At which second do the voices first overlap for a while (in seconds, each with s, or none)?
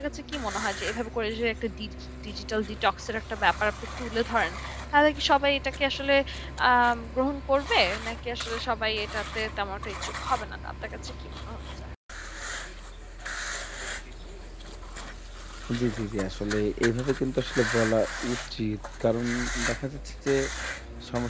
none